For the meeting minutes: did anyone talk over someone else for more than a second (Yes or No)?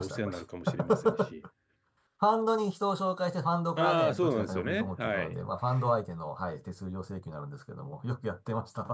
Yes